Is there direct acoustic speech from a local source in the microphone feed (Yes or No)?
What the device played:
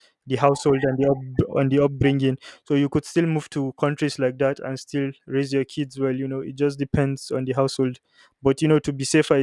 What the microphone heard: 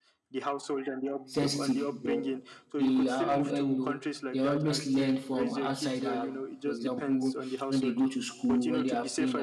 Yes